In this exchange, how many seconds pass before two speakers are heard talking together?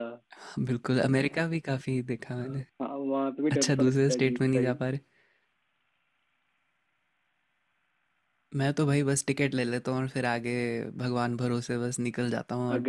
3.5 s

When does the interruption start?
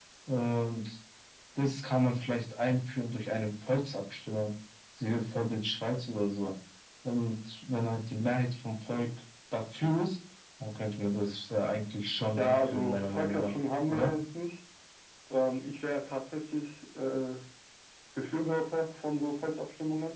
12.2 s

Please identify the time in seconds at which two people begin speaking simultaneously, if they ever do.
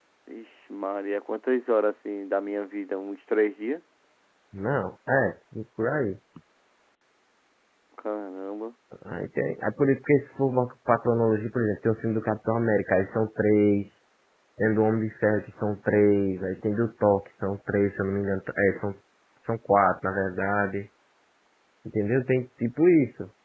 none

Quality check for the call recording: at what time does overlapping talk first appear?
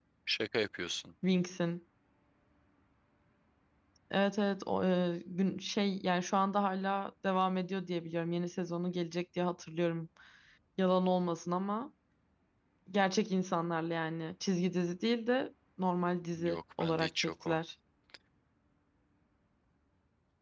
16.4 s

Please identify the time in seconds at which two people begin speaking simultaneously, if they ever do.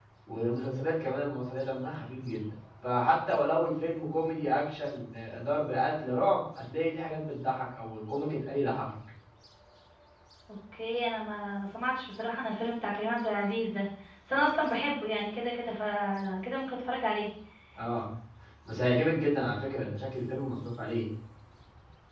none

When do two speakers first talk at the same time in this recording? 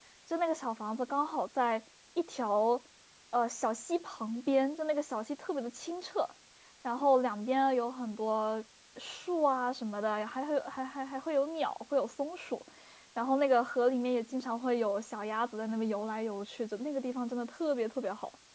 none

